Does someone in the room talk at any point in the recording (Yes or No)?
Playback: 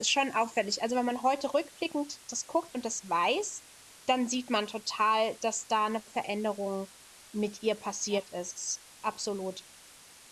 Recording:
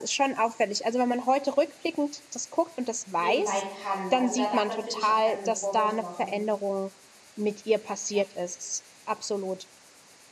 Yes